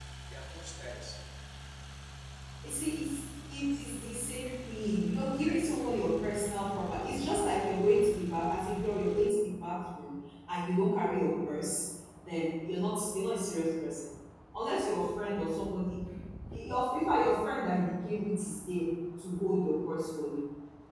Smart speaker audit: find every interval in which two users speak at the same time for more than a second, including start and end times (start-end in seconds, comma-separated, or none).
none